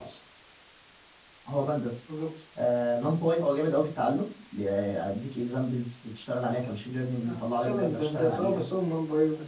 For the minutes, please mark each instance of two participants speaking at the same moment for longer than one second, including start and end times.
7.2-8.6

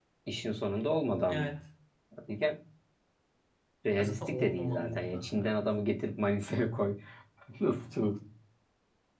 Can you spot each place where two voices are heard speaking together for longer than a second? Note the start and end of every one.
4.0-5.7

